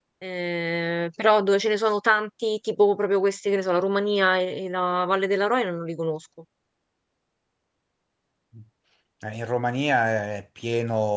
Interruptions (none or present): none